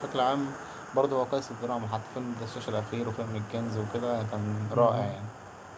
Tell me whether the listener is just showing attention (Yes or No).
No